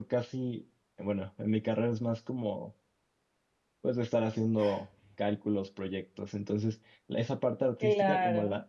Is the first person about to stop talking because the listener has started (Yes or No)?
No